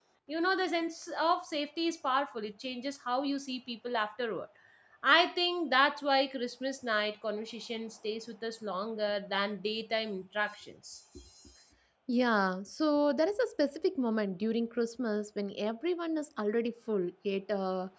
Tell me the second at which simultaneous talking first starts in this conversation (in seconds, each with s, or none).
none